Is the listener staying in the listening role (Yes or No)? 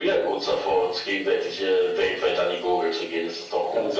No